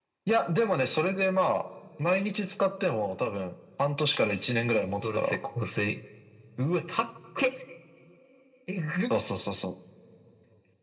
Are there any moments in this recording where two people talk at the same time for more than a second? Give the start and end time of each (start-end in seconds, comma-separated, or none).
none